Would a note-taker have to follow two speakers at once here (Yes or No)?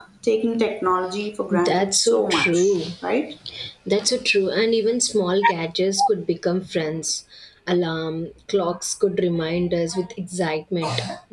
Yes